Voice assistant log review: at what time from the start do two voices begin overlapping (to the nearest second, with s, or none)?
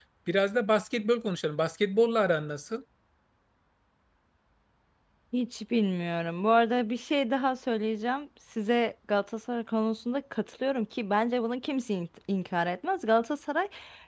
none